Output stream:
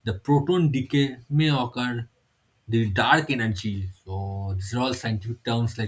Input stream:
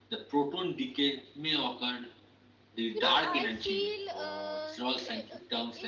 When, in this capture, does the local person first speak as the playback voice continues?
2.9 s

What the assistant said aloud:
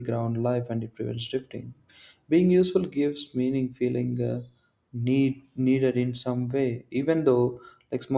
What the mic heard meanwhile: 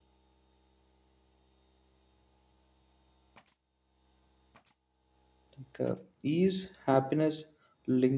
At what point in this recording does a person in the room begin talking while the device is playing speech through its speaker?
5.6 s

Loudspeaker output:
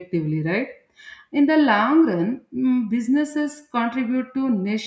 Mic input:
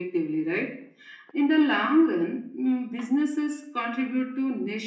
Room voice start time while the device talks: none

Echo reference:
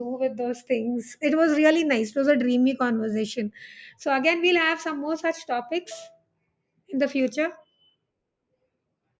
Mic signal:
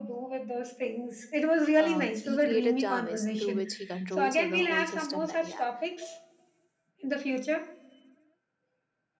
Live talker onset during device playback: 1.8 s

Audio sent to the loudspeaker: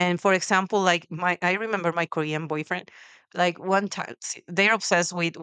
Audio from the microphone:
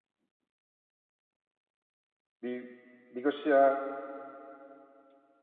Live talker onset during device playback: 2.4 s

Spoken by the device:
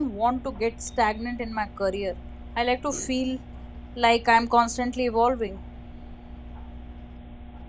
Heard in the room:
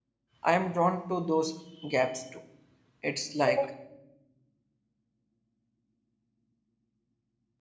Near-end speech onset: 0.4 s

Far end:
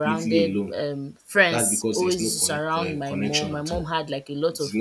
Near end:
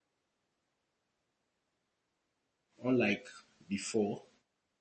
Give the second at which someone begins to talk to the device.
2.8 s

